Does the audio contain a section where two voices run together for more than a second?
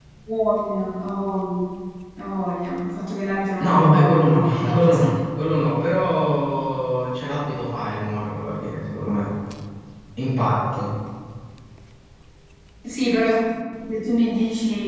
Yes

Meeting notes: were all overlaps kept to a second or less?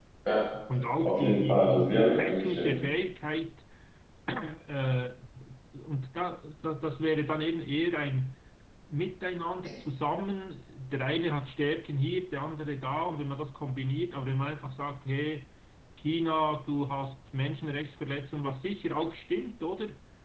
No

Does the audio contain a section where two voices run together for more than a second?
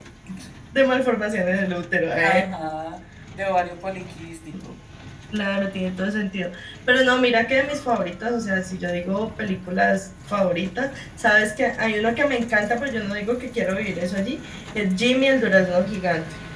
No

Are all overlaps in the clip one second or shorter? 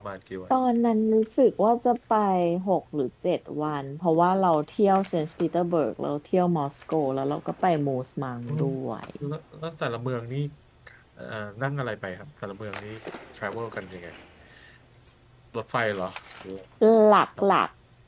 Yes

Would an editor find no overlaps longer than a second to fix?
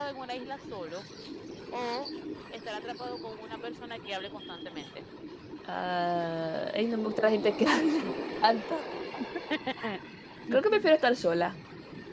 Yes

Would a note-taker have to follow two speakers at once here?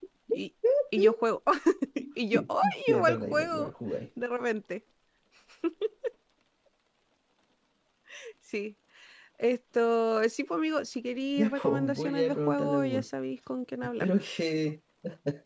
Yes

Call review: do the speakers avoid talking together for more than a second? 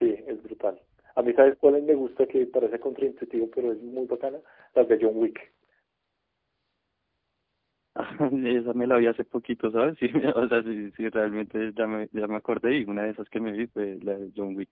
Yes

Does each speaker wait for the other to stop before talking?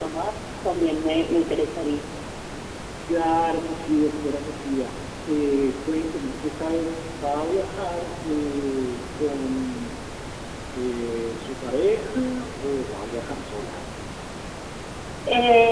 Yes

